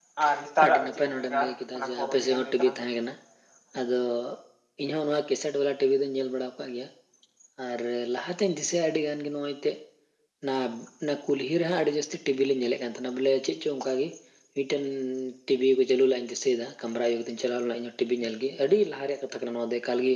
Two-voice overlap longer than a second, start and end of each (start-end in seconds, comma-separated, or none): 0.6-2.8